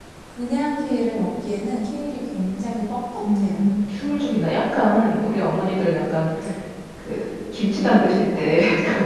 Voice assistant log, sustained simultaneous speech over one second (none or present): none